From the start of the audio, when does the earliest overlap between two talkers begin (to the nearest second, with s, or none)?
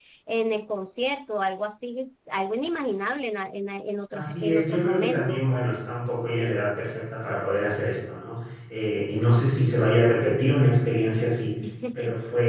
4 s